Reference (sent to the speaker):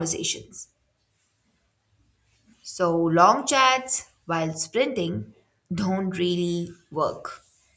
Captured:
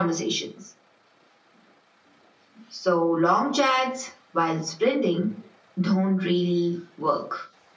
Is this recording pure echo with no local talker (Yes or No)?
Yes